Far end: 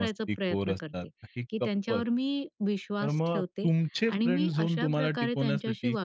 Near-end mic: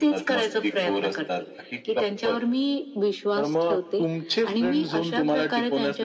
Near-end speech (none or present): none